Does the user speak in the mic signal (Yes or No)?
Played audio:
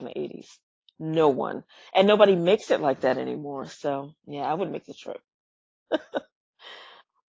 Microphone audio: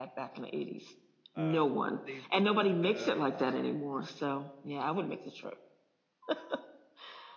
Yes